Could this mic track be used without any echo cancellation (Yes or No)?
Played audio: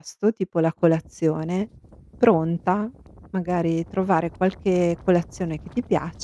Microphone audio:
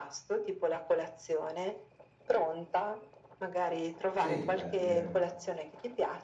No